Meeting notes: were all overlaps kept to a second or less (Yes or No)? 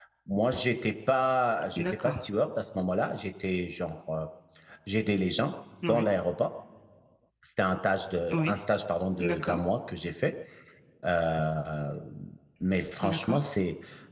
Yes